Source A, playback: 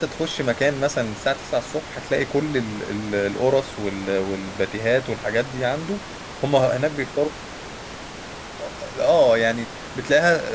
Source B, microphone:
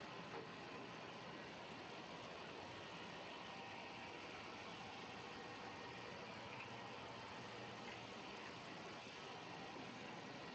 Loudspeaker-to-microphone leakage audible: No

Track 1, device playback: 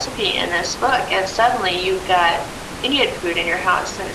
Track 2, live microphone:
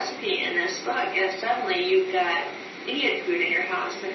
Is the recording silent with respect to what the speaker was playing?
No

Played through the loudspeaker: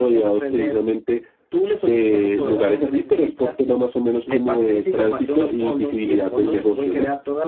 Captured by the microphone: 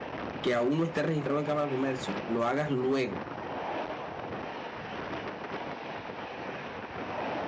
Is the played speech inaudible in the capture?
Yes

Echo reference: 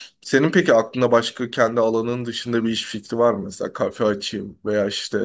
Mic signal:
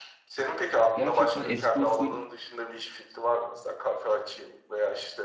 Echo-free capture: No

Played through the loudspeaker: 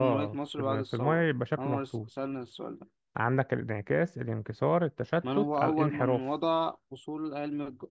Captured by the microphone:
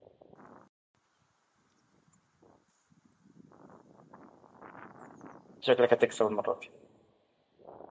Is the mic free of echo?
Yes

